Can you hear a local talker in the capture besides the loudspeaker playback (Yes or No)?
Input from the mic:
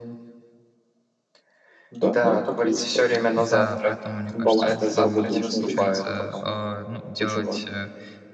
Yes